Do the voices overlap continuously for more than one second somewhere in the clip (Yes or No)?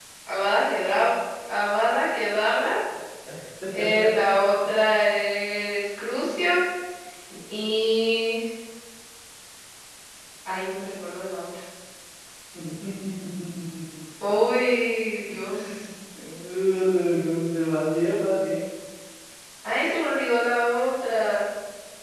No